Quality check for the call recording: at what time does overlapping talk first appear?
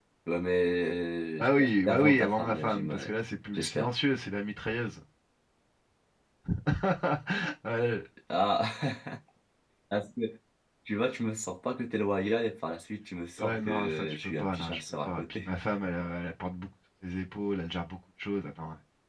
1 s

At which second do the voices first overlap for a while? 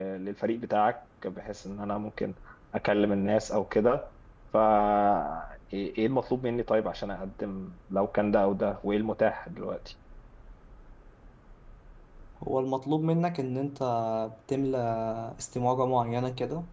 none

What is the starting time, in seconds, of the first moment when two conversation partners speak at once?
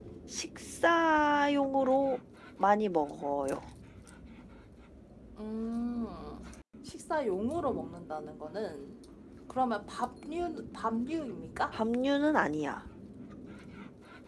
none

